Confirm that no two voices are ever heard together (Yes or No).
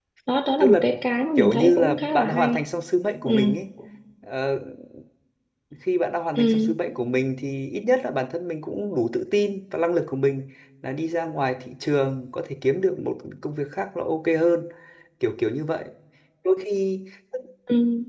No